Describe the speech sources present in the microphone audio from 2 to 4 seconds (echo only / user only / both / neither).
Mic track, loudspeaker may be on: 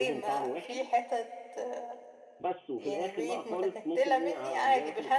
both